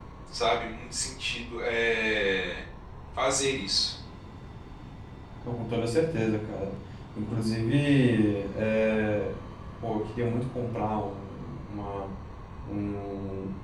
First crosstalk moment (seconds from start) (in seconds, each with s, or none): none